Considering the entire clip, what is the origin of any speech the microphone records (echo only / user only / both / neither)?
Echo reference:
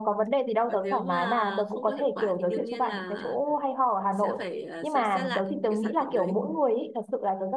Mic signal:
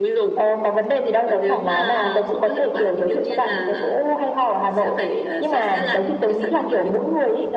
echo only